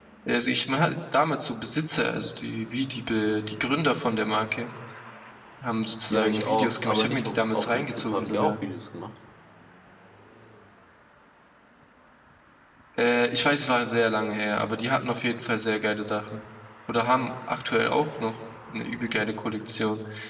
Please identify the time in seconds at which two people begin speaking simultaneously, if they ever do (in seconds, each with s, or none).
6.1 s